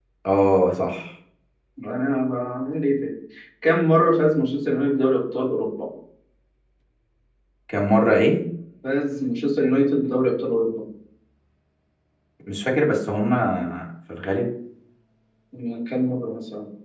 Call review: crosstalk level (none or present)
none